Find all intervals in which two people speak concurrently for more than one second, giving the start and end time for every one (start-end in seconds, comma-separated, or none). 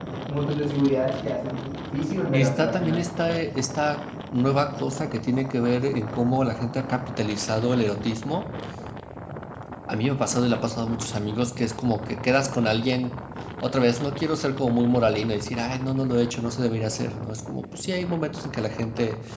2.3-3.6